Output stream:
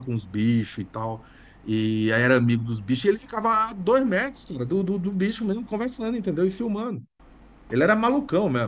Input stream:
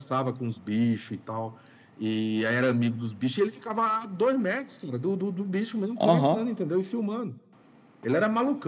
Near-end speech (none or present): present